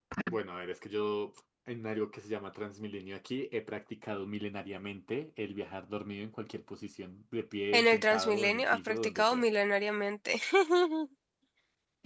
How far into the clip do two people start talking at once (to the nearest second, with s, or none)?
8 s